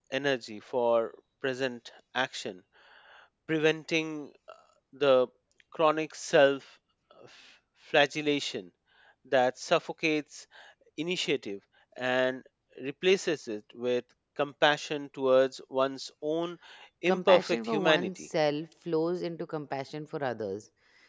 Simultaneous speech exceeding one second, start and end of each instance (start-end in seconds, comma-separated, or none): 17.1-18.3